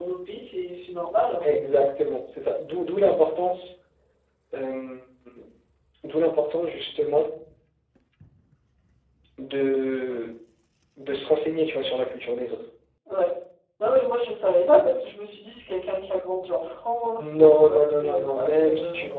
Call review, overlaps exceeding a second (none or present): present